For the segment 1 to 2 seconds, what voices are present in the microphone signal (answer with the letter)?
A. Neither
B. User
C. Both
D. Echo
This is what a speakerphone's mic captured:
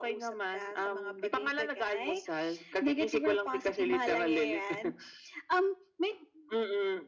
D